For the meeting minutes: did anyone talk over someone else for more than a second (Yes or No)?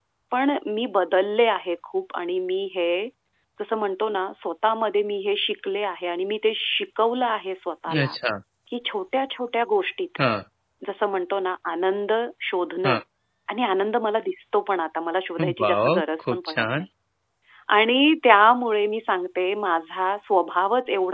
Yes